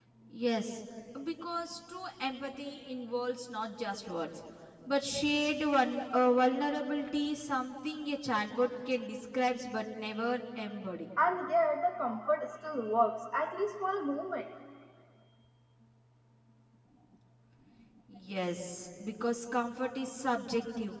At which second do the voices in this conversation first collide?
none

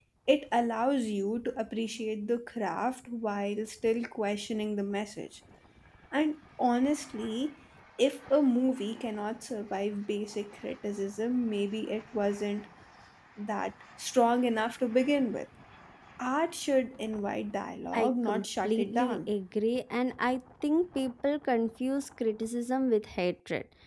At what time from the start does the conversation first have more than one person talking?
18 s

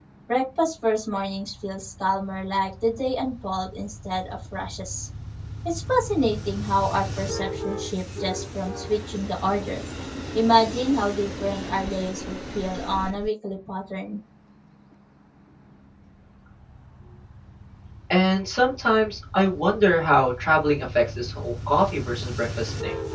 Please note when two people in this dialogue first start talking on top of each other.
none

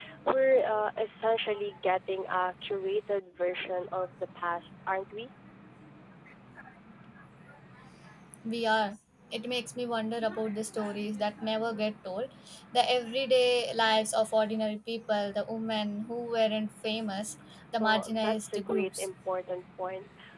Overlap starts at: 18 s

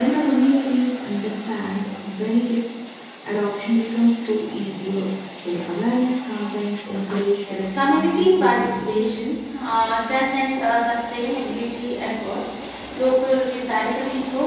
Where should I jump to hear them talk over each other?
7 s

